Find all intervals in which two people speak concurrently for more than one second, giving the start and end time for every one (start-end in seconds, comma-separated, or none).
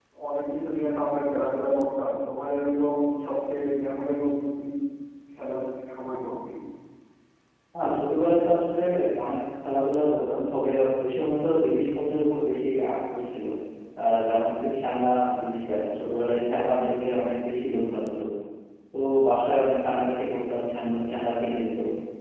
none